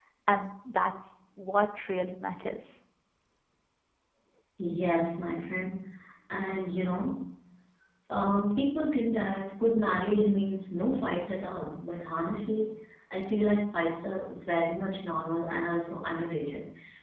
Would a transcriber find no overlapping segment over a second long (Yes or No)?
Yes